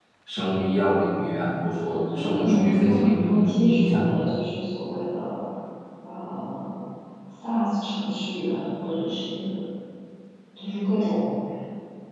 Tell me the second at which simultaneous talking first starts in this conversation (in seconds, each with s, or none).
2.2 s